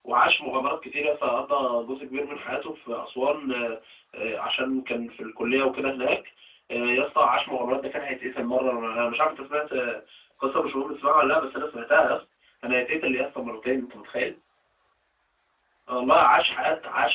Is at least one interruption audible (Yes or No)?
No